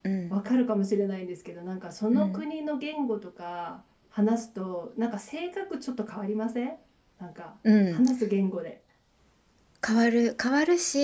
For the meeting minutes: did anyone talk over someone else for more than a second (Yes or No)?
No